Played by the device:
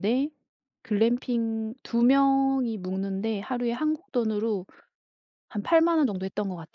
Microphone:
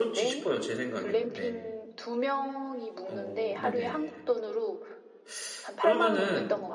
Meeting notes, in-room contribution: present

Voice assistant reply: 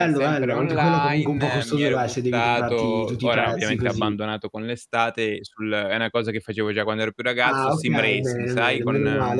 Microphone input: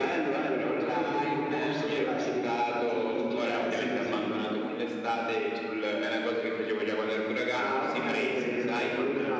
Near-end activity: none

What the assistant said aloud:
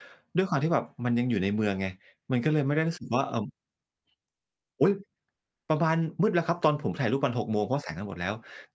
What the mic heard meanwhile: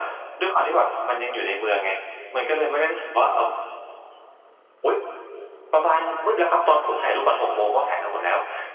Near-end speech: none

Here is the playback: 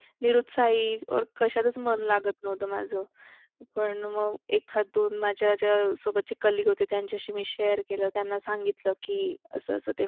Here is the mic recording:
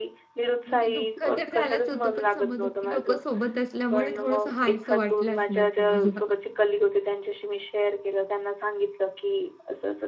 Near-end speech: present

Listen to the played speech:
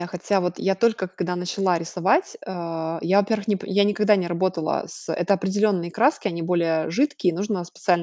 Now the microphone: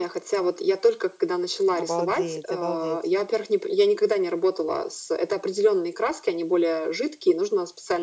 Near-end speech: present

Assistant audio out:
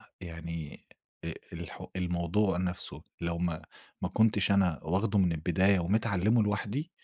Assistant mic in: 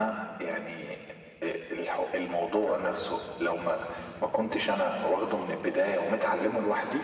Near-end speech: none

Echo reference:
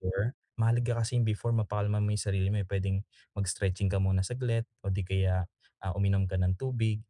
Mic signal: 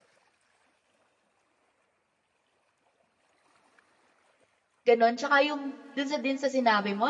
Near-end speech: present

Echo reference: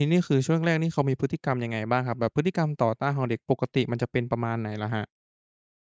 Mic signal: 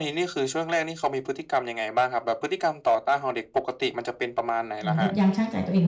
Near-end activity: present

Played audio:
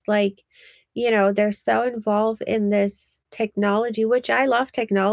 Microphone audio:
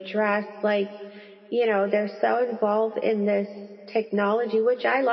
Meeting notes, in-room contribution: none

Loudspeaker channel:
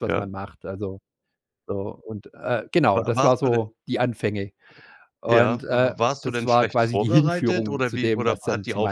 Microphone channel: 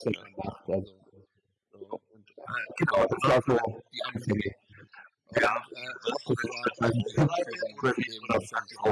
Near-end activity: none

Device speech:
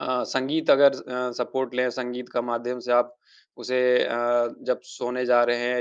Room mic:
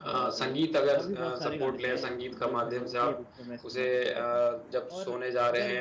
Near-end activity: present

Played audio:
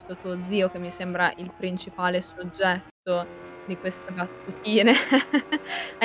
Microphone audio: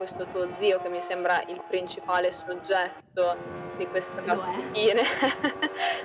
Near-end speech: present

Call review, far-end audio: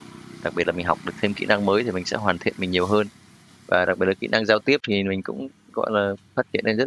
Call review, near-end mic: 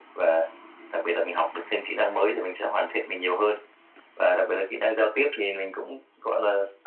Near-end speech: none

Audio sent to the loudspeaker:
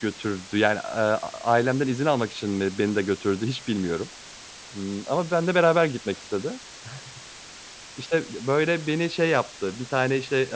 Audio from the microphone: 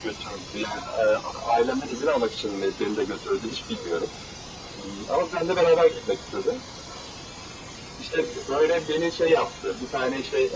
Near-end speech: none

